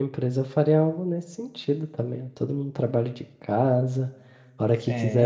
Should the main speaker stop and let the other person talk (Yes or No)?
No